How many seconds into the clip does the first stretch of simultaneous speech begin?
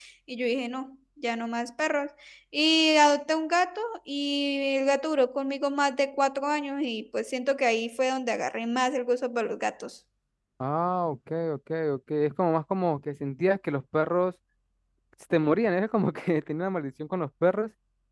none

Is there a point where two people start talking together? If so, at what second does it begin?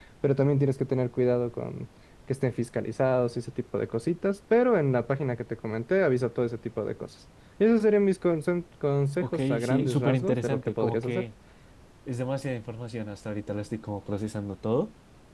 9.2 s

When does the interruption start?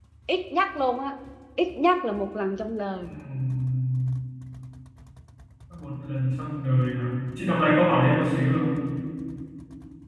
none

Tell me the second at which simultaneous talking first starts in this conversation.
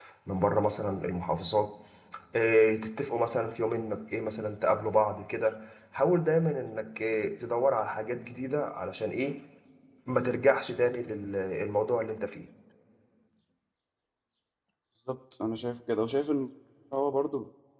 none

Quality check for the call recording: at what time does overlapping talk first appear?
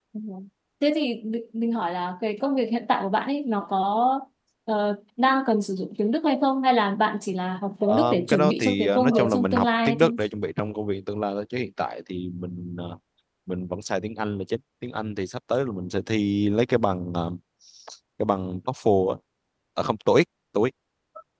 7.9 s

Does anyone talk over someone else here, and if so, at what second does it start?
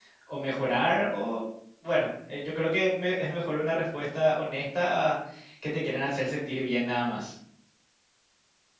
none

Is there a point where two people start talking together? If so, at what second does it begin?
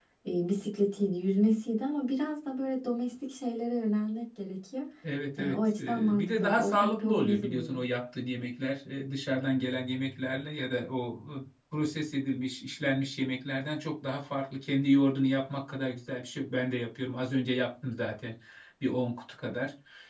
5.4 s

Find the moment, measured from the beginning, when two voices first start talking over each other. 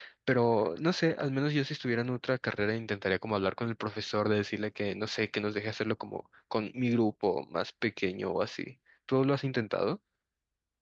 none

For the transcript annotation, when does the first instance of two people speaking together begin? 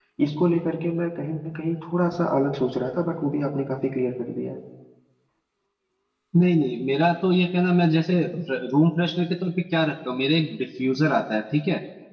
none

